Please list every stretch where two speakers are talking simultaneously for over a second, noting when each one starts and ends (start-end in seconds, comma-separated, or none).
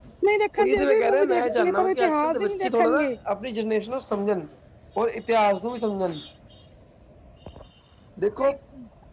0.6-3.1